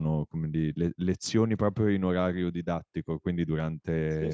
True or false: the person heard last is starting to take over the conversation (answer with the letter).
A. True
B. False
B